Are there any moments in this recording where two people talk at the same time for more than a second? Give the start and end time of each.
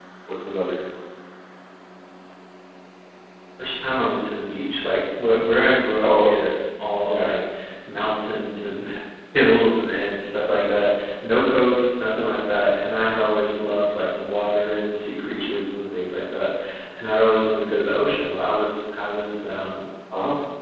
none

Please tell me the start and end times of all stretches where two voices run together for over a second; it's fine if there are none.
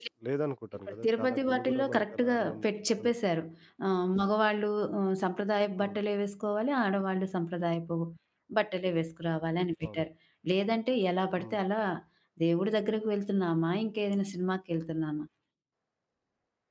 1.0-2.6

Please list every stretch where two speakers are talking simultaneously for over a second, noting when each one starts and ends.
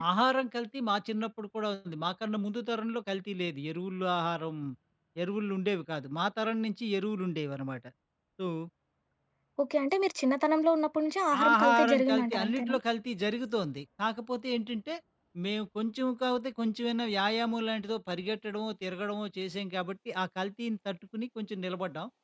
11.5-12.8

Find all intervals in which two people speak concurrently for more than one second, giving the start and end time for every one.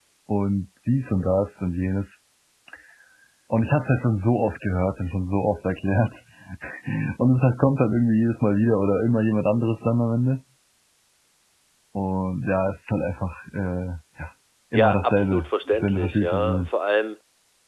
14.7-16.7

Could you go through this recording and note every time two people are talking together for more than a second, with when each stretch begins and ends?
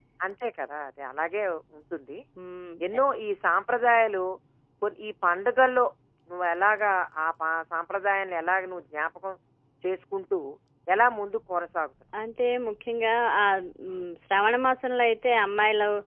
none

